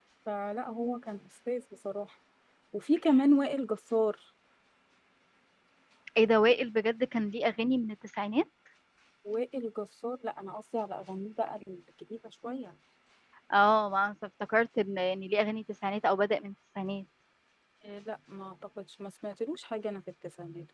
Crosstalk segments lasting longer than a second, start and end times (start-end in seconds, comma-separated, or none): none